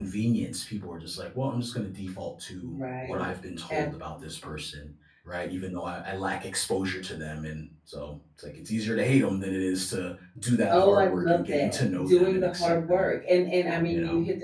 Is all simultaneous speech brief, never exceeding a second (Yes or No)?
No